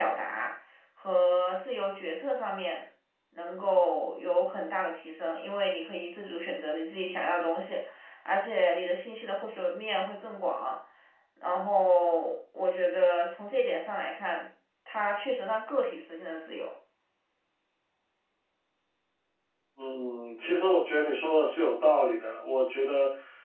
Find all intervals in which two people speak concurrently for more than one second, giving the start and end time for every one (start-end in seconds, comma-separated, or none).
none